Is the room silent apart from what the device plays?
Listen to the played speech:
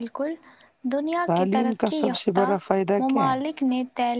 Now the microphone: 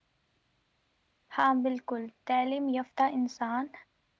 No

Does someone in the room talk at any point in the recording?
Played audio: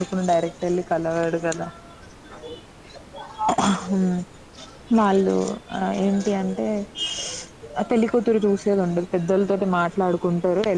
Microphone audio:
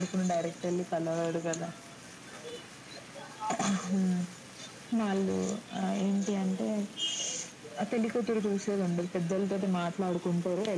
No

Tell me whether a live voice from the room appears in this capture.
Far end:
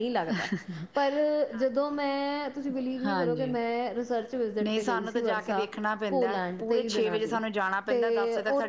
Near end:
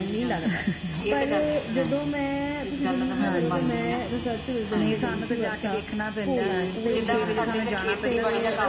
Yes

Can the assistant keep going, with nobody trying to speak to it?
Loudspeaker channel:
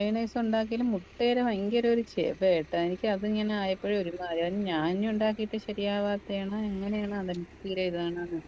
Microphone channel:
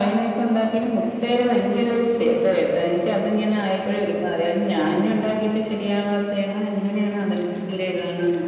Yes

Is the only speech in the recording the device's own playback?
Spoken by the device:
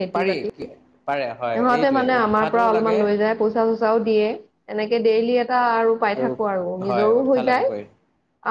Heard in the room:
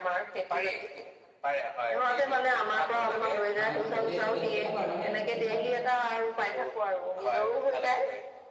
No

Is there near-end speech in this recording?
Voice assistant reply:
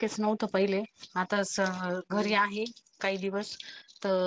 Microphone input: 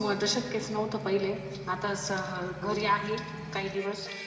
No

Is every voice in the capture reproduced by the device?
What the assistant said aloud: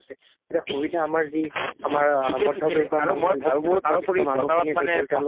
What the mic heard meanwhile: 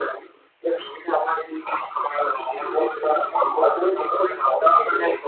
Yes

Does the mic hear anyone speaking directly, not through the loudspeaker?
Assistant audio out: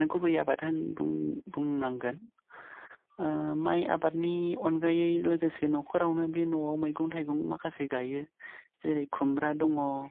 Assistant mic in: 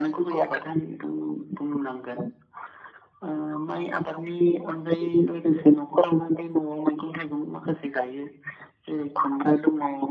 No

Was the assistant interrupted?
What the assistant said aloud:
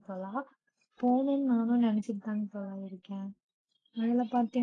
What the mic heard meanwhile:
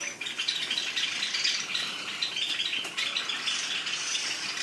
No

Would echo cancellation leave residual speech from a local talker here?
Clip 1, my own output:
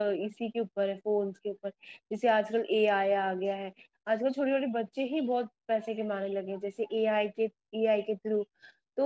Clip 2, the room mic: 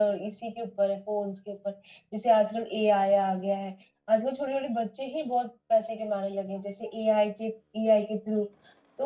No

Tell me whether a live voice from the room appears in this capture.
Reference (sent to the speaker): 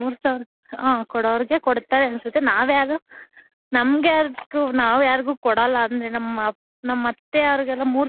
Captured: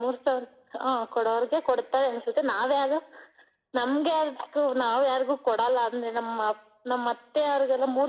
No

